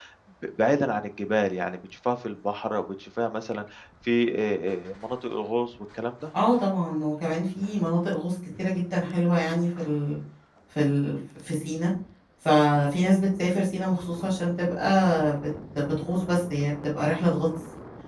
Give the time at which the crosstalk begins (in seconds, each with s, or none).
none